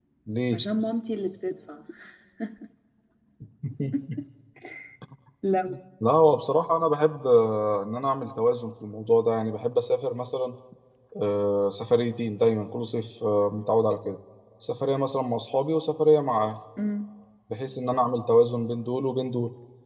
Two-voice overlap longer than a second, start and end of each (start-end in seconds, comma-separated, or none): none